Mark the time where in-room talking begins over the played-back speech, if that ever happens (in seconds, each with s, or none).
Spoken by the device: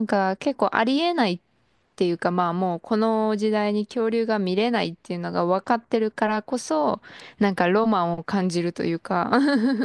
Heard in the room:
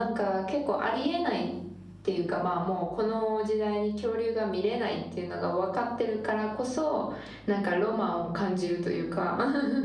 none